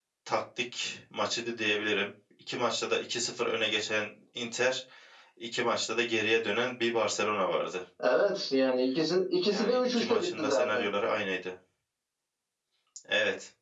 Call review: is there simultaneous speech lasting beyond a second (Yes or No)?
Yes